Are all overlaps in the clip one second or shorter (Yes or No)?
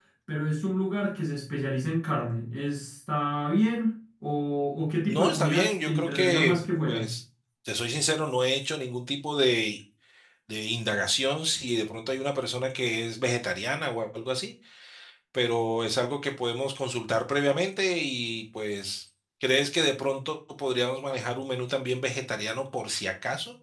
No